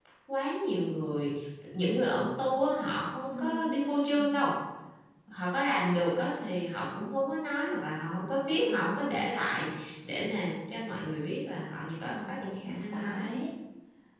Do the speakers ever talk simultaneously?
Yes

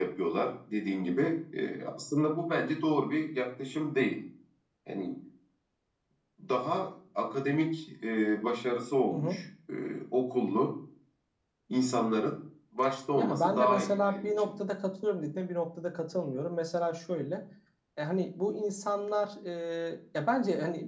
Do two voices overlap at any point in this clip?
Yes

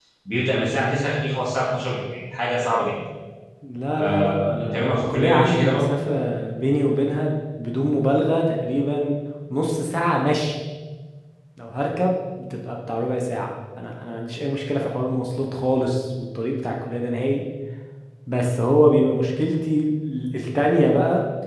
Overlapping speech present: Yes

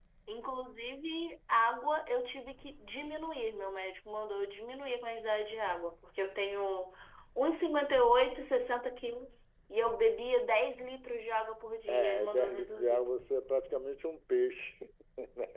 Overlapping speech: Yes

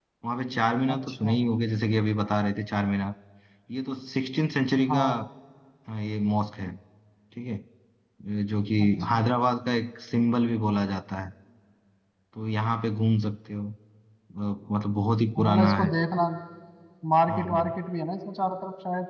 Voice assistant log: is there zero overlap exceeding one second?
Yes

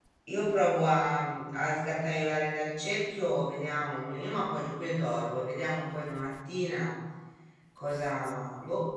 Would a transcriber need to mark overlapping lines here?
No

